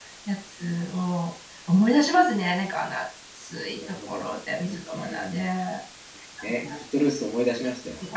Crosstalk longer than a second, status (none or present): none